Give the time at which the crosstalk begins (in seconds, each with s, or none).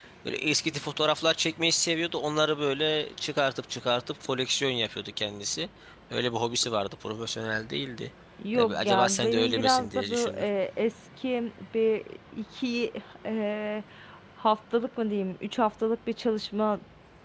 8.5 s